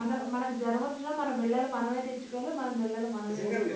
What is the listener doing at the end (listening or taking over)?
taking over